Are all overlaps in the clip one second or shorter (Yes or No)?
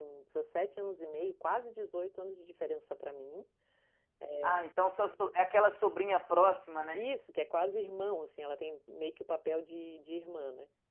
Yes